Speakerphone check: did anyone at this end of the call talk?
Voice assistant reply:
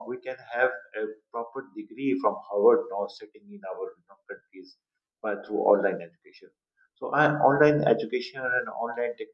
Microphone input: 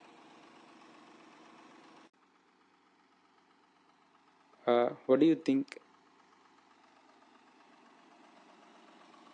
Yes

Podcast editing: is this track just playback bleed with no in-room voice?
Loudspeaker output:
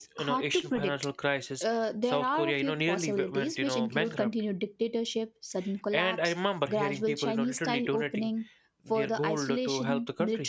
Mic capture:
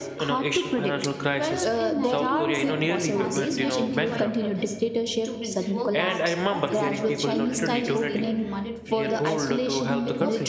No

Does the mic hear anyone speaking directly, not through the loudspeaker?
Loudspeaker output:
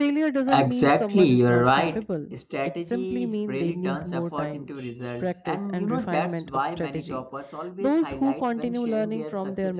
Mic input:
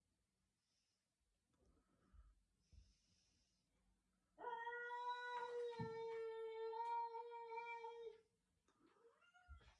No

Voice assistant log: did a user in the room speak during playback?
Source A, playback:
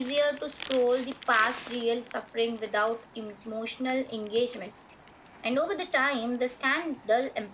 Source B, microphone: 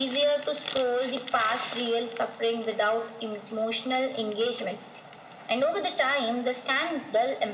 No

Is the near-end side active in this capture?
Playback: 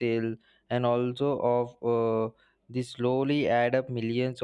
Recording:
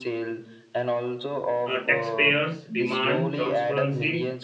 Yes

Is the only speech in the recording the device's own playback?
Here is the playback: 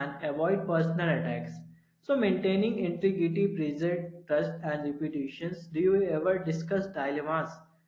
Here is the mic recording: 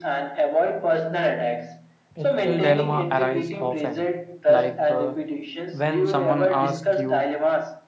No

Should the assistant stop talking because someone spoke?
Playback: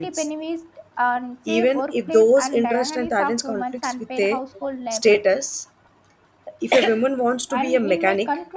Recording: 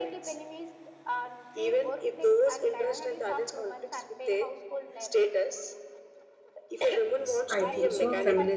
Yes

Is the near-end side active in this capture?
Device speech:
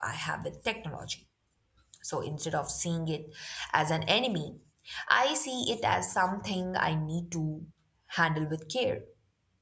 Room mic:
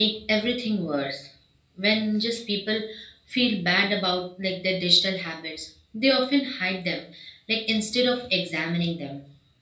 Yes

